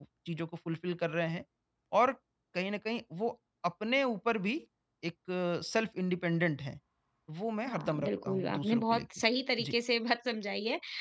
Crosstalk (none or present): present